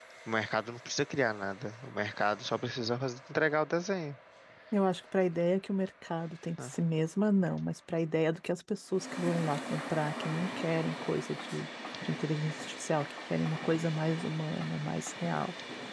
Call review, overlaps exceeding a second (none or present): none